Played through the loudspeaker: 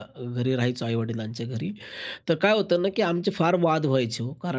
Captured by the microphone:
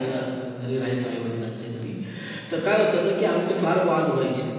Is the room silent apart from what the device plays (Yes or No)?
Yes